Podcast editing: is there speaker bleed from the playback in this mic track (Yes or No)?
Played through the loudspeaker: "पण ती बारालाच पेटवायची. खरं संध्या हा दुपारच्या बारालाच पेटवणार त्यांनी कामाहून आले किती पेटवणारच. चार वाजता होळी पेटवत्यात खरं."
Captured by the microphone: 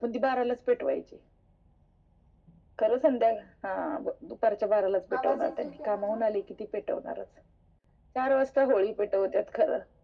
Yes